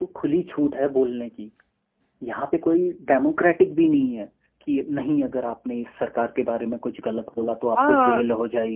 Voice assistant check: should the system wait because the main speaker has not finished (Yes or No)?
No